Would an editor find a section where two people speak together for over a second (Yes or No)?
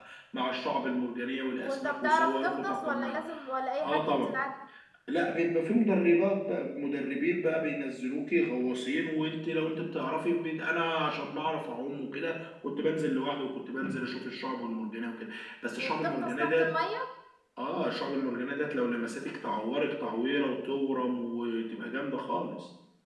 Yes